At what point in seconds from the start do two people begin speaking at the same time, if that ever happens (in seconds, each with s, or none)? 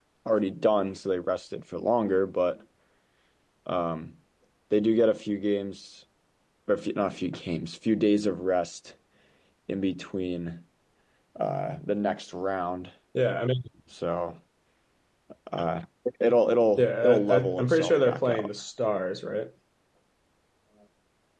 16.8 s